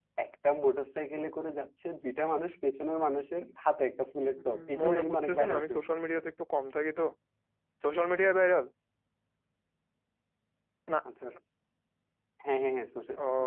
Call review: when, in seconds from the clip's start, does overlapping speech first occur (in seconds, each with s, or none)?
4.4 s